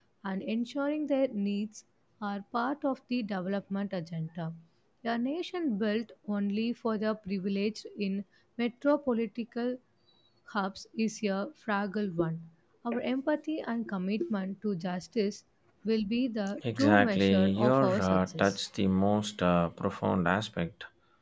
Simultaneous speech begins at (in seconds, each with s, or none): 16.6 s